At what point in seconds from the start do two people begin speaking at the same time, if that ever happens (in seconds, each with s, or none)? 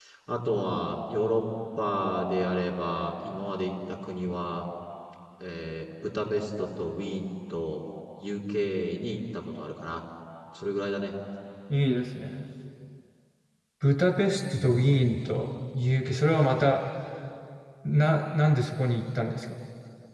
none